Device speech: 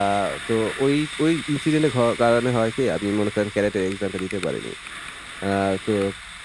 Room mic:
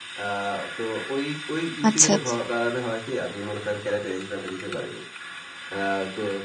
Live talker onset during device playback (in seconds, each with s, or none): 1.9 s